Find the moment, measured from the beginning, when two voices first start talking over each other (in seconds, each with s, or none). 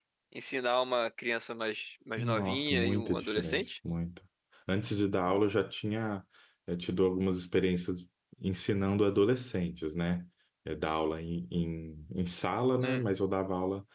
2.2 s